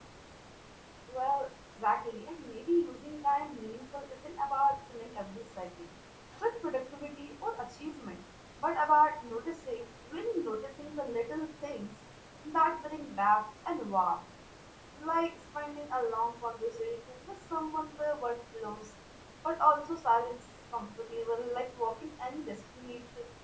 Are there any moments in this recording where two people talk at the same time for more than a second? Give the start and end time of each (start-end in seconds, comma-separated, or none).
none